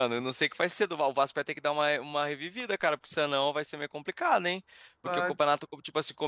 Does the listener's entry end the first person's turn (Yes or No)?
No